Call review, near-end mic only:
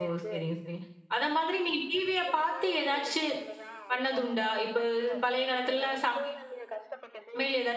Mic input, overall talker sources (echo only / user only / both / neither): both